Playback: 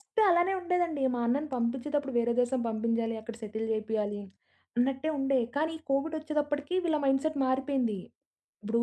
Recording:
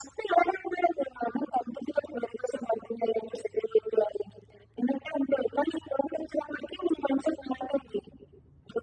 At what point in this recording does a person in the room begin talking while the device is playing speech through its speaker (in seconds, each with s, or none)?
none